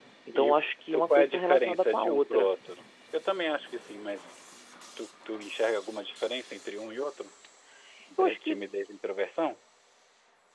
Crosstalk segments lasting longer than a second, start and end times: 0.9-2.5

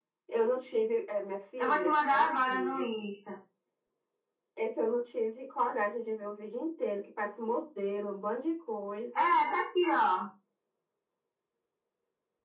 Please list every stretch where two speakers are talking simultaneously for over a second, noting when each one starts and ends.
1.6-3.0

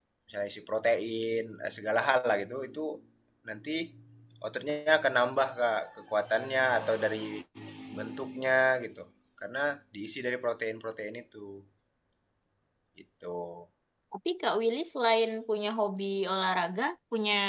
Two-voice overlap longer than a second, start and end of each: none

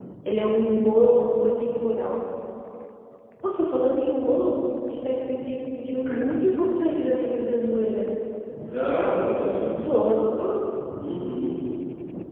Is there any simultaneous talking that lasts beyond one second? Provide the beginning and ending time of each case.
none

